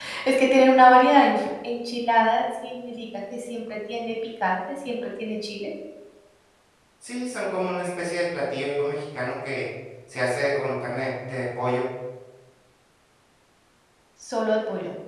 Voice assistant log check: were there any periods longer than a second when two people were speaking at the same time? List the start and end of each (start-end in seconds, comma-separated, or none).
none